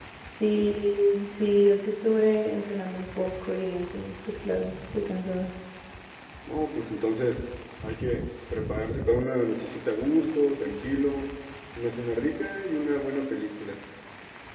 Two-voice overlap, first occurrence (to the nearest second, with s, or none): none